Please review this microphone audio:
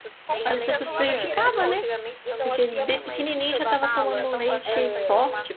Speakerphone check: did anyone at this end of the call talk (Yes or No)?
Yes